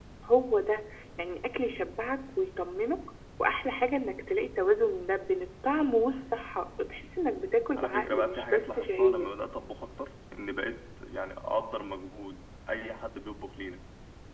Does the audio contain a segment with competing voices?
Yes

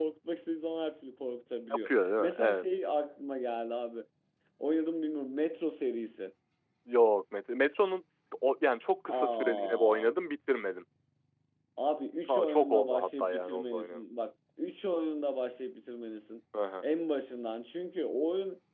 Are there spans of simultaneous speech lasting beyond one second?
Yes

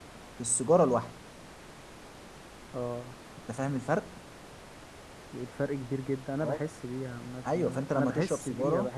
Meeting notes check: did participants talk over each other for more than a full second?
Yes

